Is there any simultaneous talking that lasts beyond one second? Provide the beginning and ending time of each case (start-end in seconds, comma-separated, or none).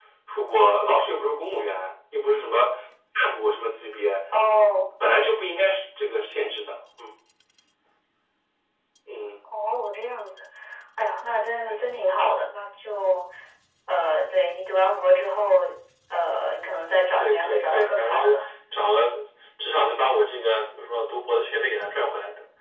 17.2-18.4